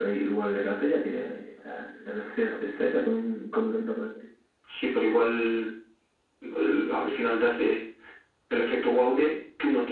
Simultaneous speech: No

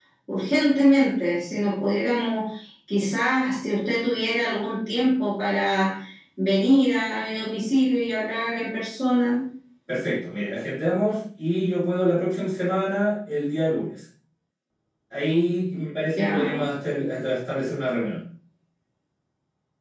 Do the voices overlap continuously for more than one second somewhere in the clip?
No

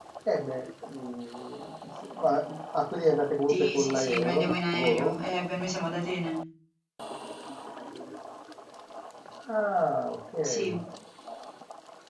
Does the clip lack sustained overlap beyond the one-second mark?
No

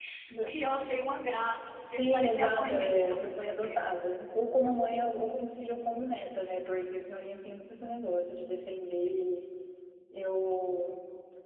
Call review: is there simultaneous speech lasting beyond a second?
Yes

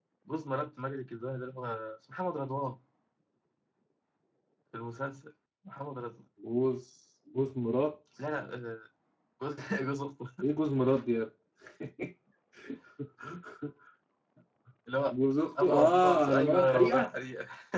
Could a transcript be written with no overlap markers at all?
No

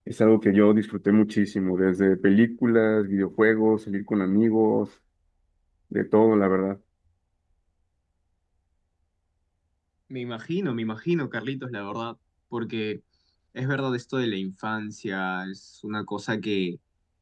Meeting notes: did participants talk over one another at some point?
No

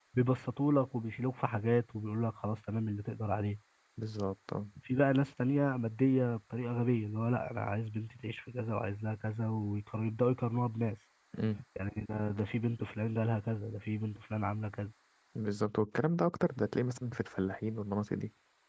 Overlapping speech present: No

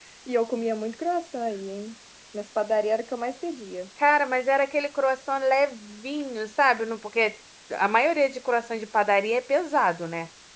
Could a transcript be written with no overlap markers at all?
Yes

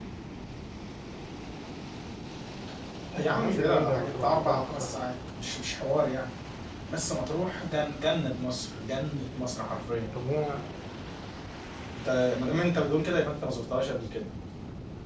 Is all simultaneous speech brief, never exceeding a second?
No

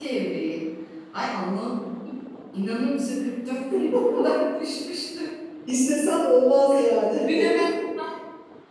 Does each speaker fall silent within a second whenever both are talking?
Yes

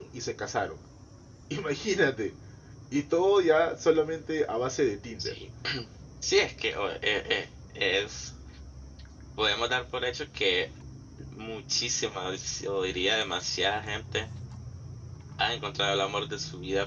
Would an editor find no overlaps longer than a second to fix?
Yes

